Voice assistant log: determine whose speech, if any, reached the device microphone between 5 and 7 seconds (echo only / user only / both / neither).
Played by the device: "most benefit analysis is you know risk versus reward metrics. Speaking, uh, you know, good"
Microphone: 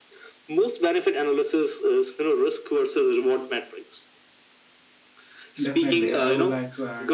both